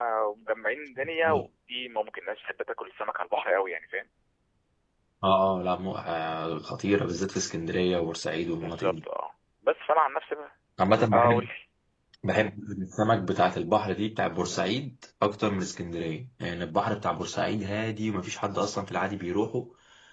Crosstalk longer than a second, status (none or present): none